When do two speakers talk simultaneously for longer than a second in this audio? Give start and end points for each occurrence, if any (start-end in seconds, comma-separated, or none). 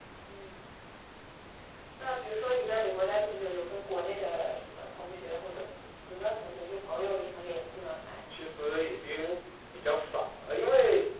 none